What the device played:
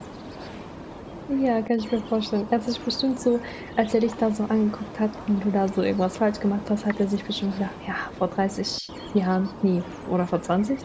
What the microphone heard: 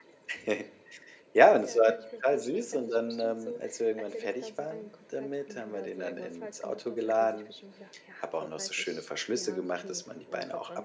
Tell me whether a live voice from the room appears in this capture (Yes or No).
Yes